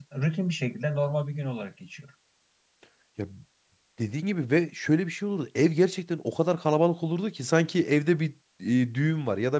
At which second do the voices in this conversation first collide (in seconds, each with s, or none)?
none